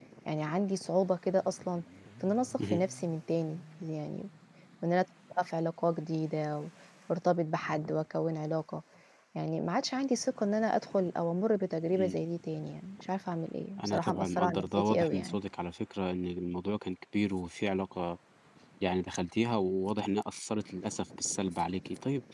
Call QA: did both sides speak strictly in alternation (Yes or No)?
No